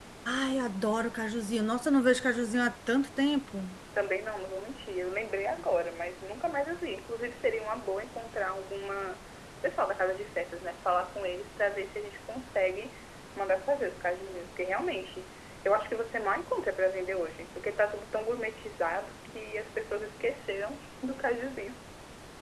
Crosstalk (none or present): none